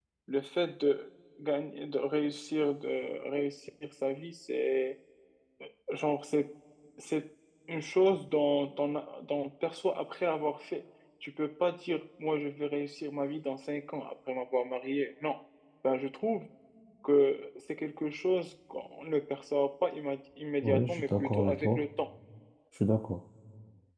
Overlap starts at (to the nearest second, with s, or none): 21 s